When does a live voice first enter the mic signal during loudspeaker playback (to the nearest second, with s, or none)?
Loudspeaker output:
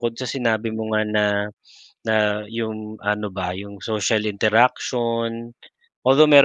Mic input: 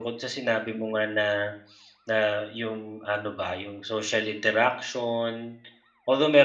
none